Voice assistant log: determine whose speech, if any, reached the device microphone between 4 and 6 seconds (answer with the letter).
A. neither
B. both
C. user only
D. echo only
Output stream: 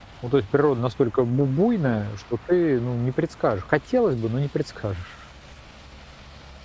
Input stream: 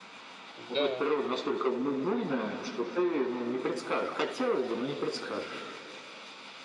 D